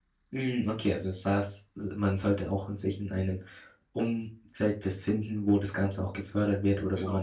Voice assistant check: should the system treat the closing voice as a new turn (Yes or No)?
No